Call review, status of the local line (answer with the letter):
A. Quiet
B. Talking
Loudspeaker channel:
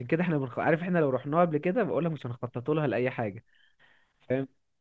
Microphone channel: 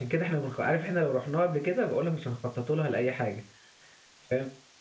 A